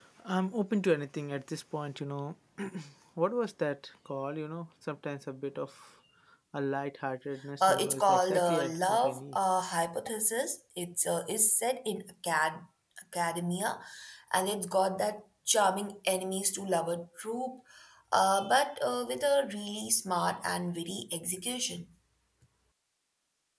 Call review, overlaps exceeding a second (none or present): present